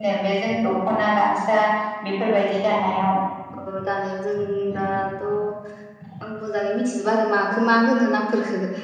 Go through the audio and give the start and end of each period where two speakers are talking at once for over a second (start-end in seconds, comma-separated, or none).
none